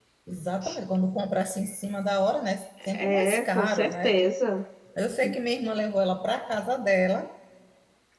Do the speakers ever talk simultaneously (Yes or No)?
Yes